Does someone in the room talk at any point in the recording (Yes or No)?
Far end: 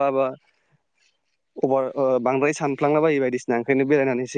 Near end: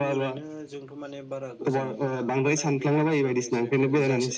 Yes